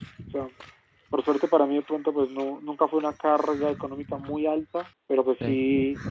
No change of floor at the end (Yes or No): Yes